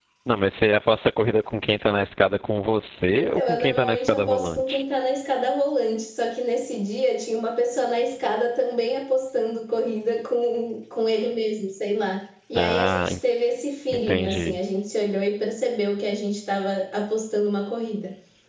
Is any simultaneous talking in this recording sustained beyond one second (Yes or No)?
Yes